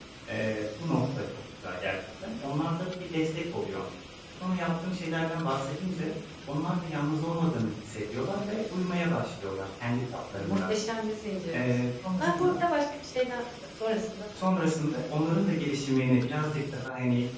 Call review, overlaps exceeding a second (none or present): none